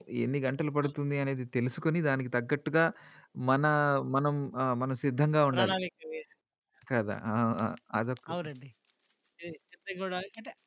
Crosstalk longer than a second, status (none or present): none